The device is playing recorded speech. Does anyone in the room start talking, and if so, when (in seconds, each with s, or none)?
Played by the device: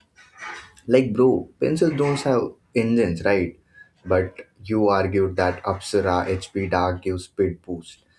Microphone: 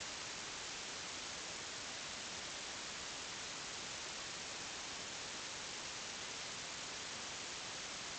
none